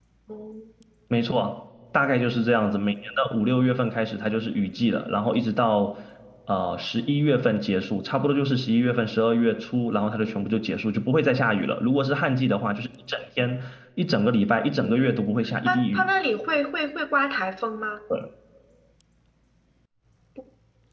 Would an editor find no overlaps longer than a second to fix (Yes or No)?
No